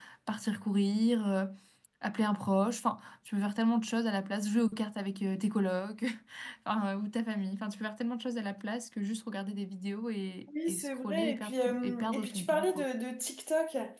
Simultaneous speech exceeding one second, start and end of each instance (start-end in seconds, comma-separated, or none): 10.7-12.8